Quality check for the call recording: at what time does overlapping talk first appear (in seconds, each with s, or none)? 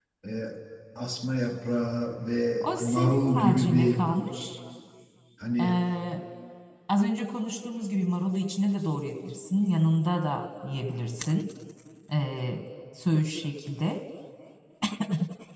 2.6 s